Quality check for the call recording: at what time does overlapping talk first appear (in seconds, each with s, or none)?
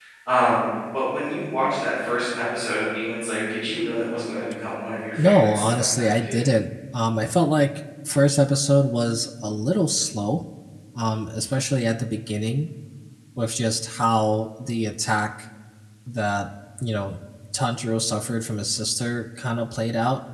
5.1 s